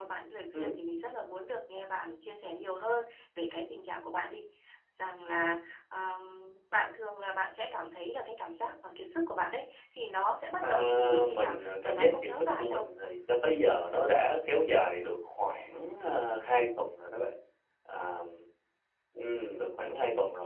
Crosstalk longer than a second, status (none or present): present